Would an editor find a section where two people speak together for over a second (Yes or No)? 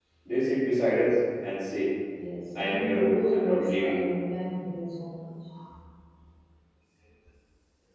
Yes